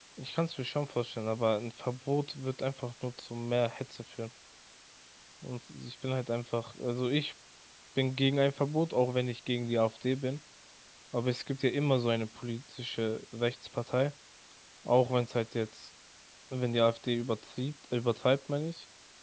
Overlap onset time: none

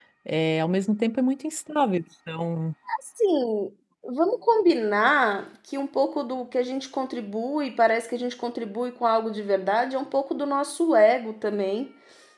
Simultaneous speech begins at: none

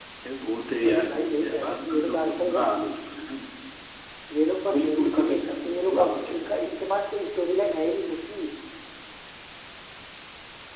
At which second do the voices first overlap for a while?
0.8 s

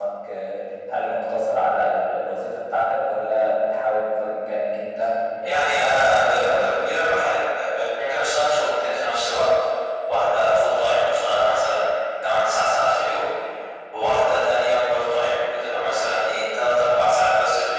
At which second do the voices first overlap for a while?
5.4 s

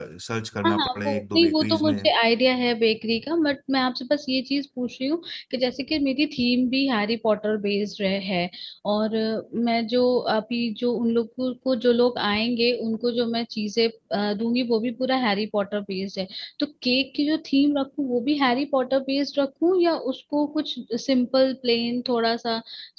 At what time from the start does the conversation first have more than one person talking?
0.6 s

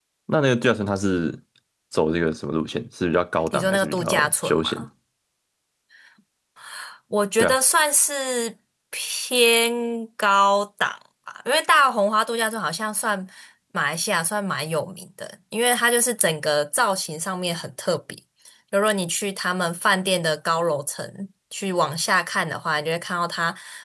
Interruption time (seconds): 3.5 s

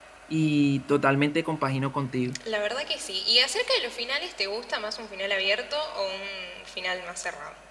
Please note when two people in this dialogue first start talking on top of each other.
none

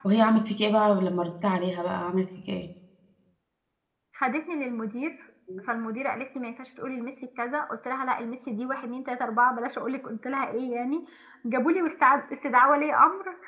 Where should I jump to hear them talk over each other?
none

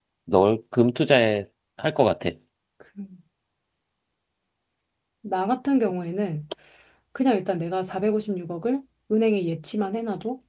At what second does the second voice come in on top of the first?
none

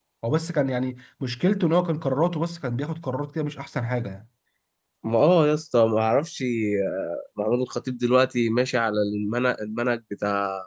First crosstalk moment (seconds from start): none

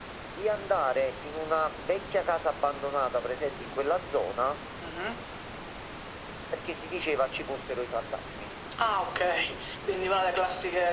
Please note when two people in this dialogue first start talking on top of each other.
none

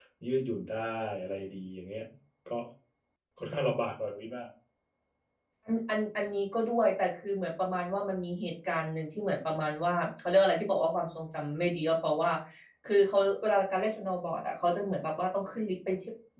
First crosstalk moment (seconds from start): none

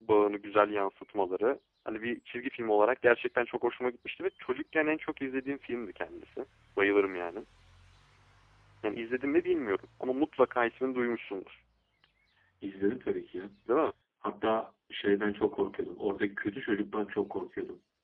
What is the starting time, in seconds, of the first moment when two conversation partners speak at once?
none

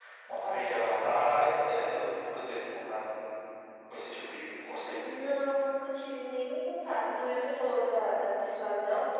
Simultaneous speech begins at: none

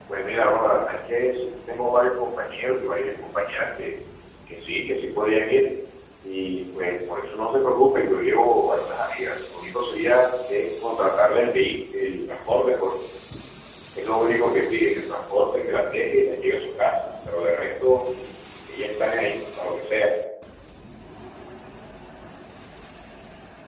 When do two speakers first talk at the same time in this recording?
none

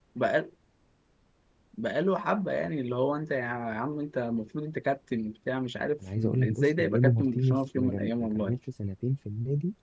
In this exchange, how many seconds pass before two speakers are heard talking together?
6.0 s

